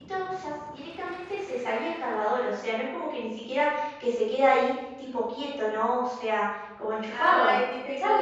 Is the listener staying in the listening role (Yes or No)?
No